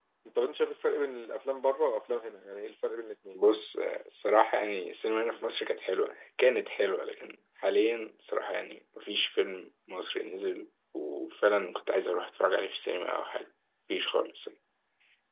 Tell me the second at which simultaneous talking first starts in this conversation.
none

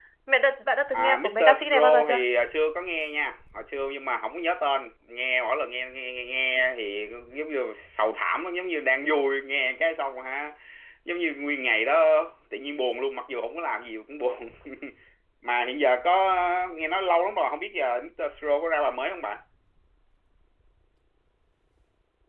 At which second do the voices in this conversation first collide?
1 s

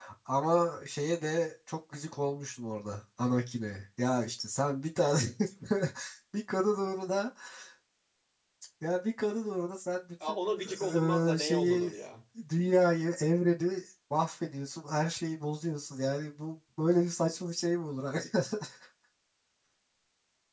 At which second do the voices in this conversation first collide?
10 s

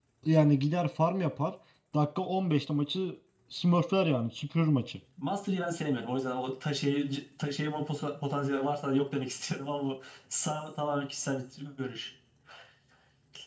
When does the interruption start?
none

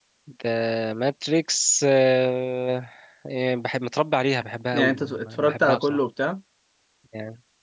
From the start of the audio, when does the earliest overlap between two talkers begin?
5 s

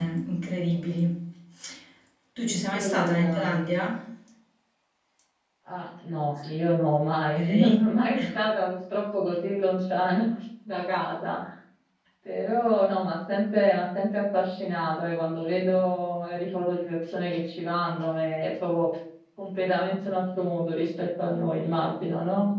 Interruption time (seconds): 2 s

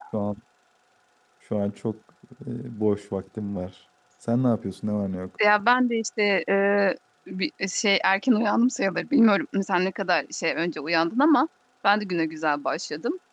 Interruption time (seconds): none

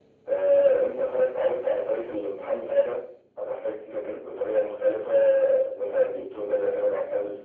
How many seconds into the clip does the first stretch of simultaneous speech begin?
none

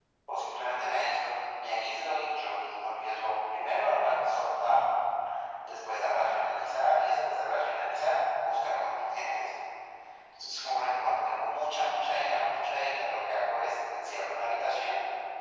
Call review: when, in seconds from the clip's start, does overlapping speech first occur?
none

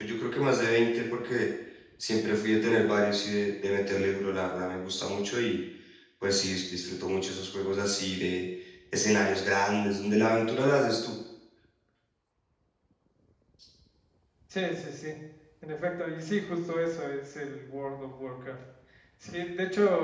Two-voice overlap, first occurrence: none

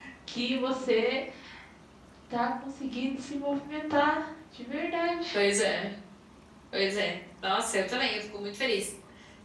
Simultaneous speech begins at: none

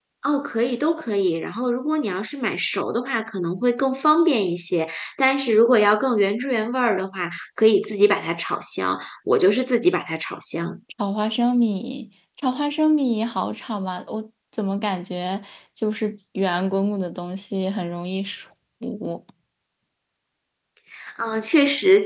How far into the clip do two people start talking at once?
none

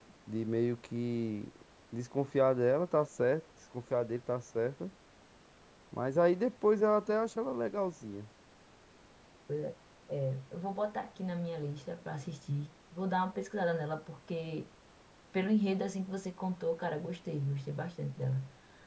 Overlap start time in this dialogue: none

